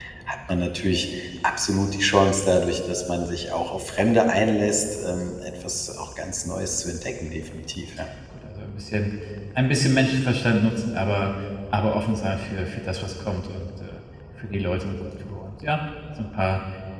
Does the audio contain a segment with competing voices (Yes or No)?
No